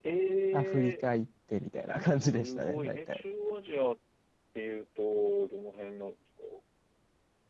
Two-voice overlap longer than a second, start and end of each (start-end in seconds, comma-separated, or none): 1.9-3.2